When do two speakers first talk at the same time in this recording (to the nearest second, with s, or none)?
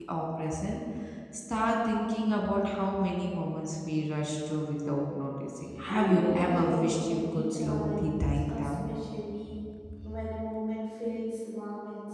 6 s